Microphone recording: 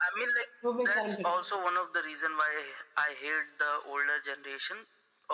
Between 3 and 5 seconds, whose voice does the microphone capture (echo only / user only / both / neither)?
echo only